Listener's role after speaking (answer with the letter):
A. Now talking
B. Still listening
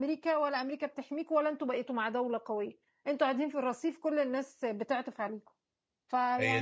A